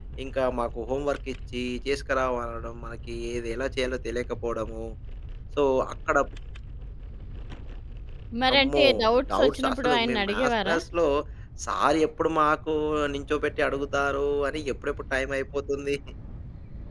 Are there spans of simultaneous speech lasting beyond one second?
Yes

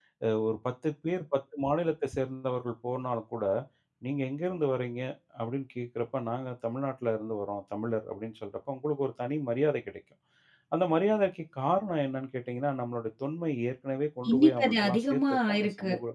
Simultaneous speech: Yes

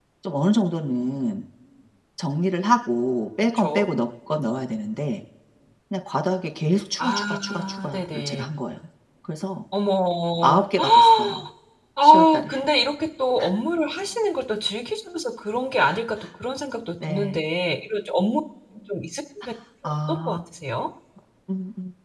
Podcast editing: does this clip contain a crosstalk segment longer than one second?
Yes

